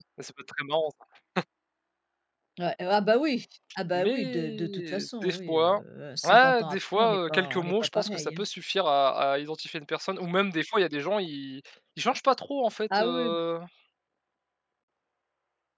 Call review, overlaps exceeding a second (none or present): present